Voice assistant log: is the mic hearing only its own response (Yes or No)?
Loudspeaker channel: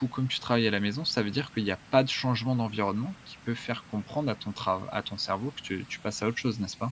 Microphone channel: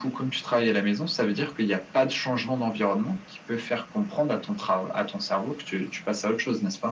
Yes